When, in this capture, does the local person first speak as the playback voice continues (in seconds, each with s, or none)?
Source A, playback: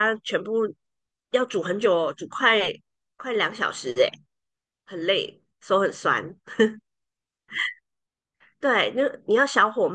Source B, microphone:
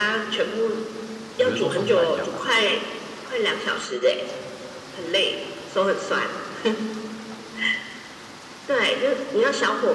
1.4 s